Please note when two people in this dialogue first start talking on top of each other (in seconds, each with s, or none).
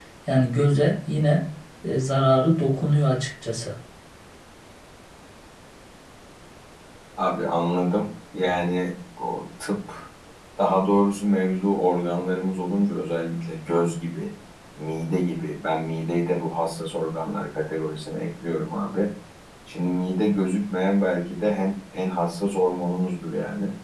none